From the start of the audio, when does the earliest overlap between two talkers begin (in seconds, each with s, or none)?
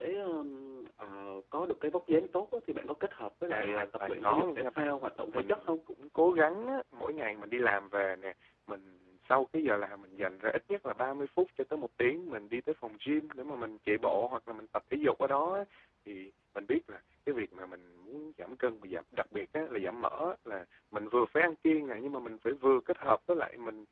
3.5 s